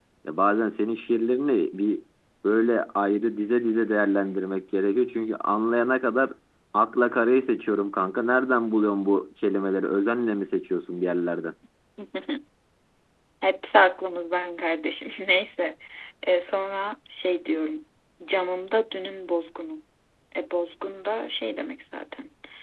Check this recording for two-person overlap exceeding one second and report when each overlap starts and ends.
none

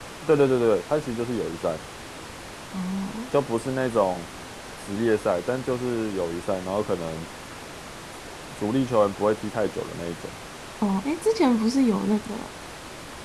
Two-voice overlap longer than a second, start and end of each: none

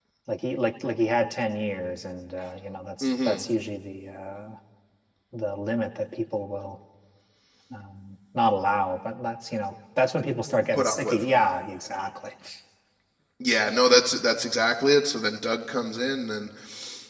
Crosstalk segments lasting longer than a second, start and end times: none

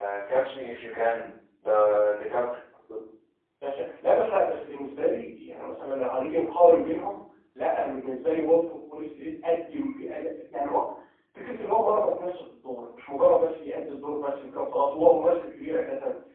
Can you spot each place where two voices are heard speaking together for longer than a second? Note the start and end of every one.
none

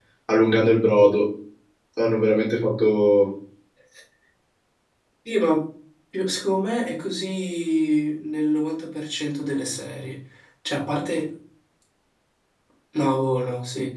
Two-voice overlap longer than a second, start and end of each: none

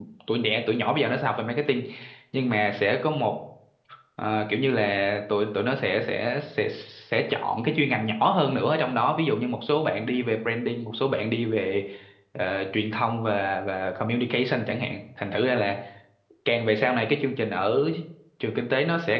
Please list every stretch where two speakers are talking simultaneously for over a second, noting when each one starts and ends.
none

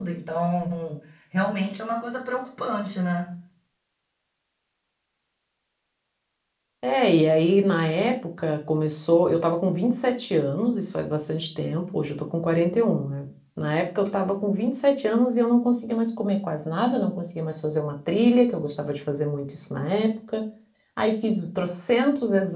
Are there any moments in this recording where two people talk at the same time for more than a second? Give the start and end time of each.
none

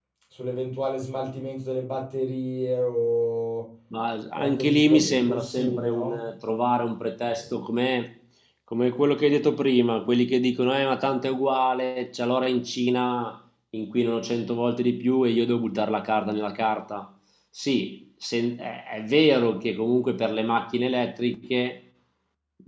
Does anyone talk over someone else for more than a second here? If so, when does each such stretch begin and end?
4.4-6.2

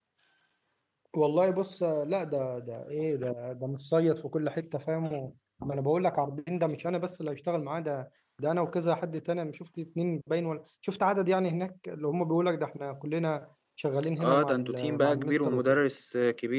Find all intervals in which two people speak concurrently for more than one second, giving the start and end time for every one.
14.2-15.8

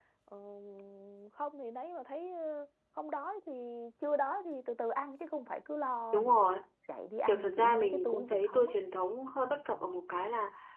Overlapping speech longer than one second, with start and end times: 7.3-8.7

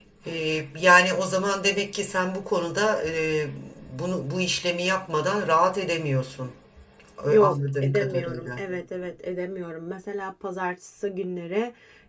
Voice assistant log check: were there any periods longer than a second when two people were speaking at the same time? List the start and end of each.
7.3-8.6

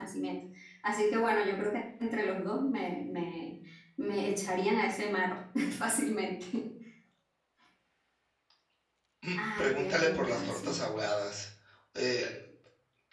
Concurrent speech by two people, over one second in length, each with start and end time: 9.6-10.8

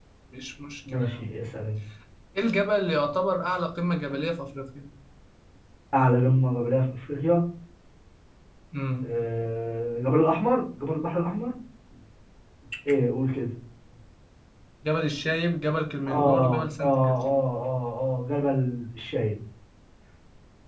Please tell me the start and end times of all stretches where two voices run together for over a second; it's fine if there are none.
16.1-17.4

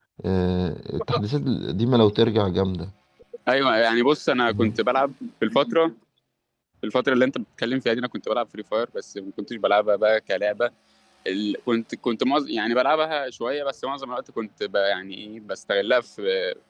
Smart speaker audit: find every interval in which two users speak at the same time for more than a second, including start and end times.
none

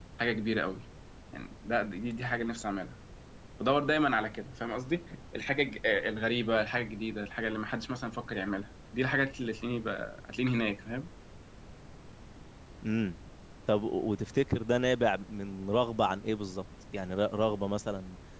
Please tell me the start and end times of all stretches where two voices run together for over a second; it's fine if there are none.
none

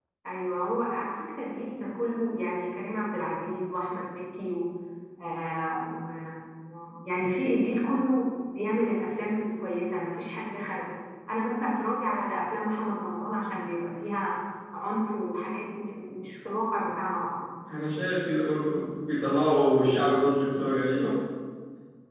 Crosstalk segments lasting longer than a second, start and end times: none

